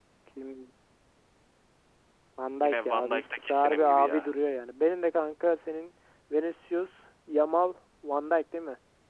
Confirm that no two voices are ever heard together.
No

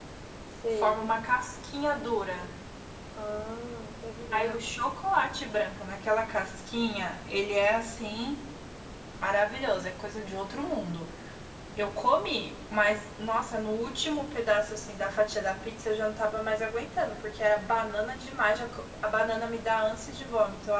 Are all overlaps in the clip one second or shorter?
Yes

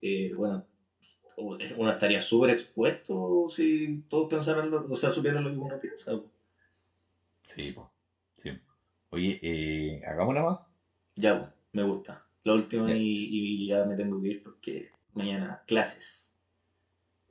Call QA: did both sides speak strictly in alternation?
Yes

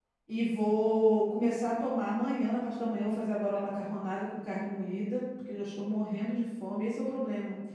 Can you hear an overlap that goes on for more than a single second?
No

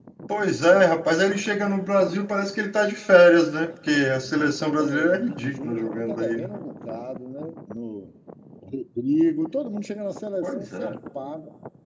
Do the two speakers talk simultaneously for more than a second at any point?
Yes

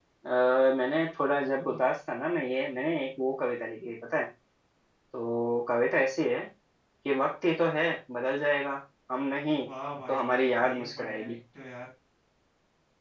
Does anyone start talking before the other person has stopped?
Yes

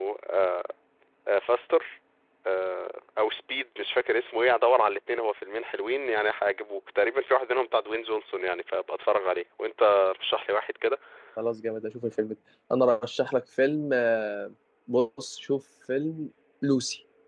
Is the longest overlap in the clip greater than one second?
No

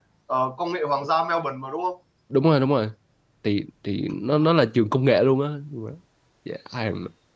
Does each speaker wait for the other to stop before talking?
Yes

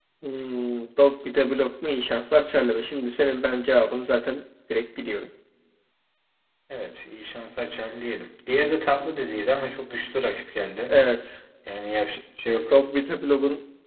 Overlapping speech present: No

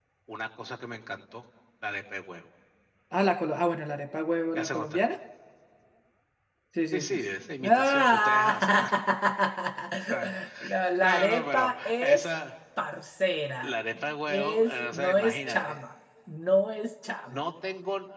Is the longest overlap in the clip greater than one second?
Yes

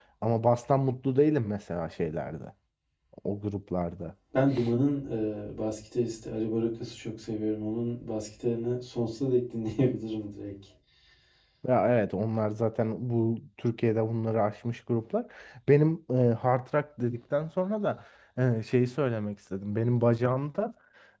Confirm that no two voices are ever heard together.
Yes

